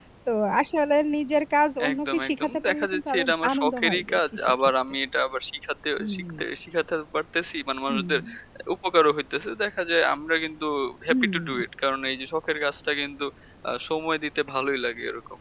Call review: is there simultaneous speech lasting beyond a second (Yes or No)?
Yes